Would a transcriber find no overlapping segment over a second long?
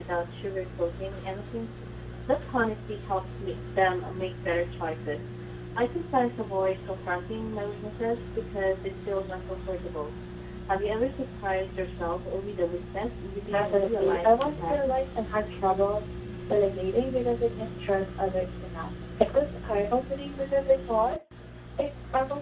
No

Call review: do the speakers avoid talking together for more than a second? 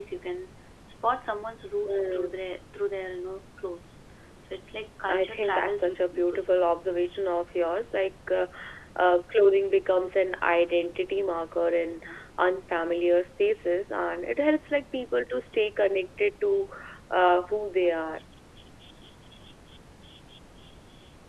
No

